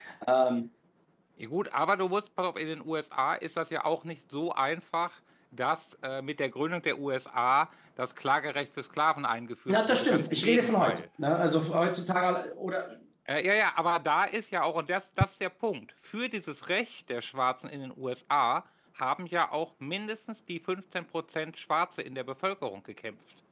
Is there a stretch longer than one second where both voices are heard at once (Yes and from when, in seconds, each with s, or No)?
Yes, from 9.7 s